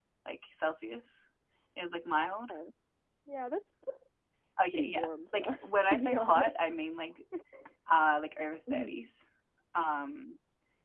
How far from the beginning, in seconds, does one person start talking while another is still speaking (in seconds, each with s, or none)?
4.7 s